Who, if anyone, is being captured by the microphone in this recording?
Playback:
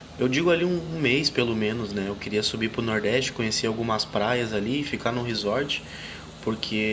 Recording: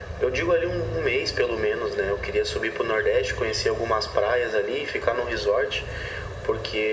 echo only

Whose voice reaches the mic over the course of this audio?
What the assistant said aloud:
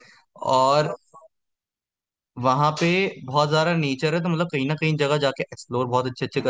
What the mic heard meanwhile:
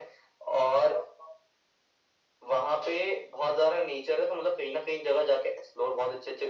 echo only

